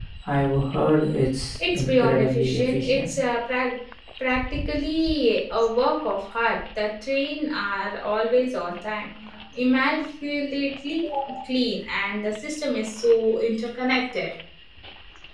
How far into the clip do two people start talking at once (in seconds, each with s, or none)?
1.6 s